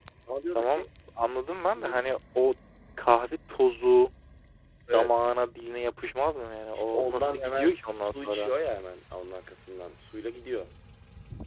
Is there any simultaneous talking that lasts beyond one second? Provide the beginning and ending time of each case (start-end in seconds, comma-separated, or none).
6.8-8.5